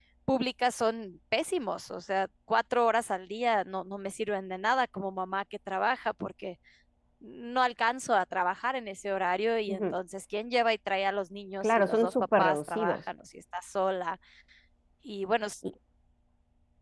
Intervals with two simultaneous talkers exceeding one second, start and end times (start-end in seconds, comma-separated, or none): 11.6-13.0